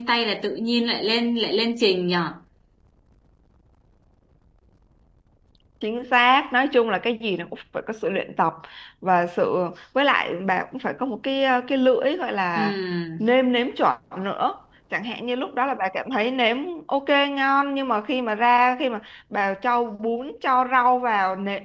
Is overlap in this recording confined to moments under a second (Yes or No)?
Yes